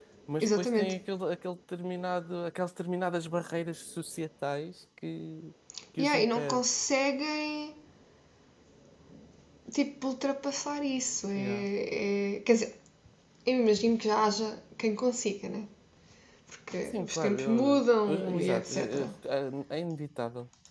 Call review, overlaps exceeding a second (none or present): present